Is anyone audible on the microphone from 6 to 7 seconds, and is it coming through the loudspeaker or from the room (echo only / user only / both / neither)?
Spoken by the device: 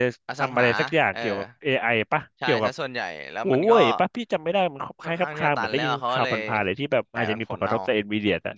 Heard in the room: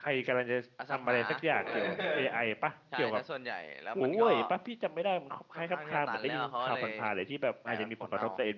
echo only